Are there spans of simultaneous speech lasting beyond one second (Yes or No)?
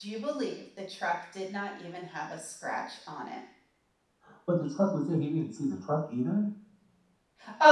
No